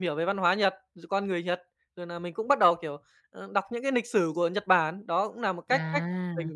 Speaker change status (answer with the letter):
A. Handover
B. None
B